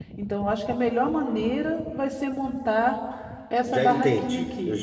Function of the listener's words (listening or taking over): taking over